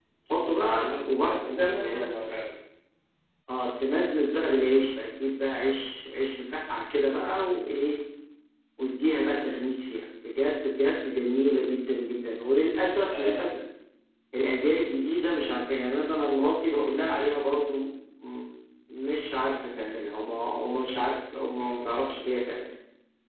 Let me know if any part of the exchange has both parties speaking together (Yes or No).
Yes